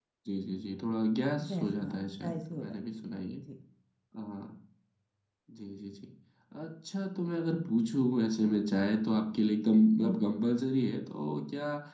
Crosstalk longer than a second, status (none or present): present